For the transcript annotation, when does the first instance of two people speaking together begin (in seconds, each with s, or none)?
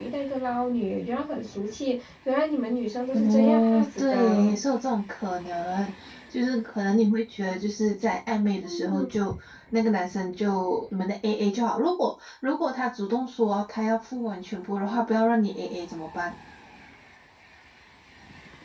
3.1 s